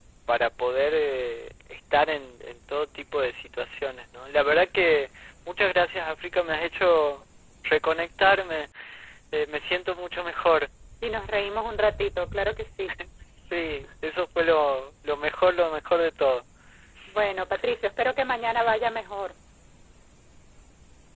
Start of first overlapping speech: none

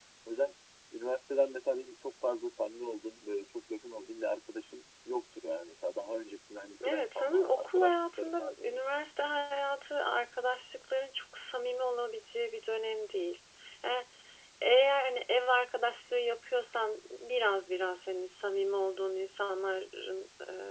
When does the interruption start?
6.8 s

